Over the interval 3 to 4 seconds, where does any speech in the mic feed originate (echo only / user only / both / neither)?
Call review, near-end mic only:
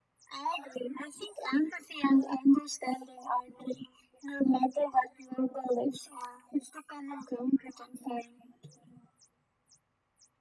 echo only